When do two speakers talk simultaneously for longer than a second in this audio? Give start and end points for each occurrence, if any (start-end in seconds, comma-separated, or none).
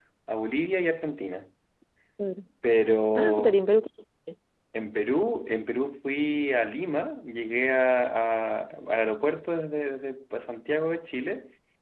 none